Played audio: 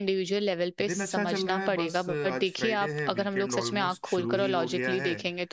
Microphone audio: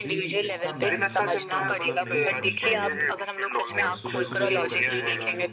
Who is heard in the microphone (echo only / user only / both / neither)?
both